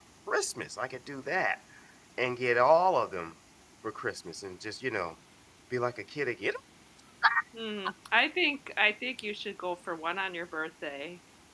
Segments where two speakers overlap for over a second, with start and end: none

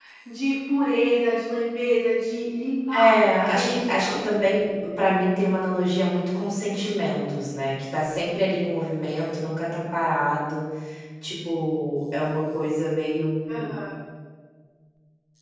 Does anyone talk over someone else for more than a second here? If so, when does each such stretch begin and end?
2.9-4.3

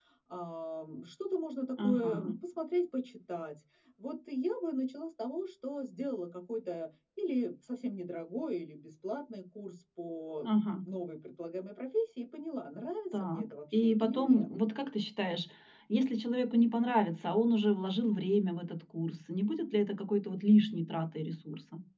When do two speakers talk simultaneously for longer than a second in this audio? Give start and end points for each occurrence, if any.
13.1-14.5

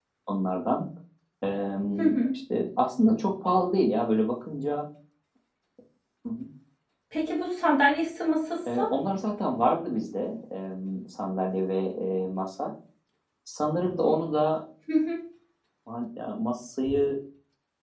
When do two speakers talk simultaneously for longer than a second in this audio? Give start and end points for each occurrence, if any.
none

